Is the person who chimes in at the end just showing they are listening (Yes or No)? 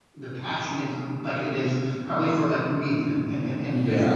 No